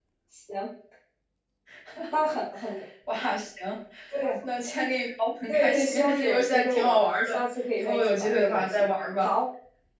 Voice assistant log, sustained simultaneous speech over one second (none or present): present